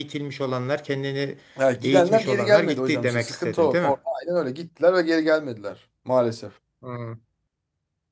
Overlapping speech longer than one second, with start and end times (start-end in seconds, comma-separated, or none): 1.8-3.9